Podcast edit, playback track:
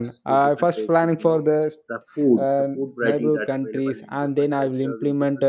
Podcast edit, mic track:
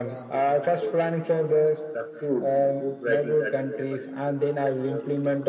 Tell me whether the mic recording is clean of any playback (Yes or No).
No